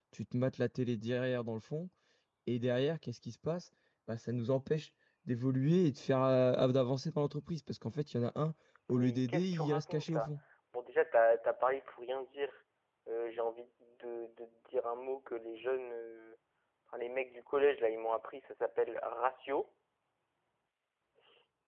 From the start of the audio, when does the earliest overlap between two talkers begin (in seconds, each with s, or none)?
8.9 s